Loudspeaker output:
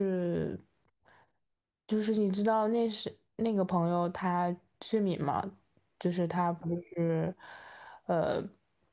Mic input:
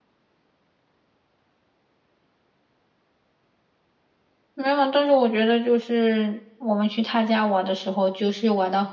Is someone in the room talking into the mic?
Yes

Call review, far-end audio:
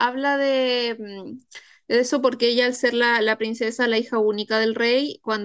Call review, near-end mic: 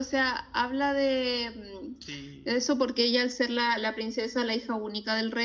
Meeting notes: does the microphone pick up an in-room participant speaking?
Yes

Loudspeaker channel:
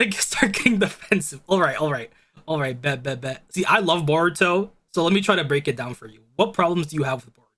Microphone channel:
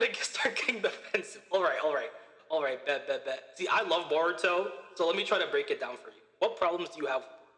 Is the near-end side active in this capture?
No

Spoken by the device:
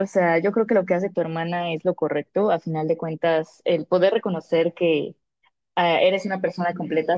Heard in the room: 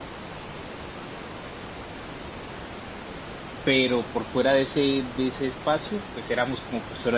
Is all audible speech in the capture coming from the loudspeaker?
No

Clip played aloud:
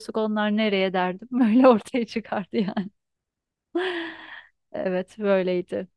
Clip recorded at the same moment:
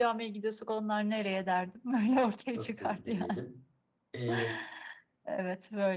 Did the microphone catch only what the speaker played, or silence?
No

